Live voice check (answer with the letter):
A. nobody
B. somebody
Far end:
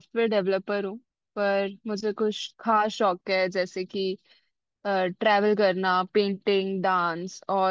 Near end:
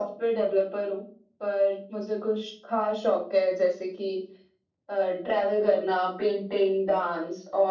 A